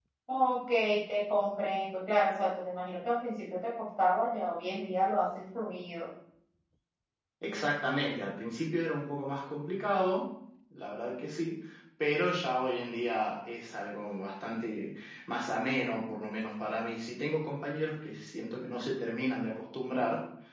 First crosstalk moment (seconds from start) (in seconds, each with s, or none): none